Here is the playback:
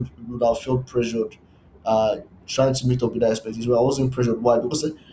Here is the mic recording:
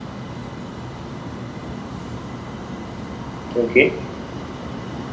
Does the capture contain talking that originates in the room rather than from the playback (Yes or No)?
Yes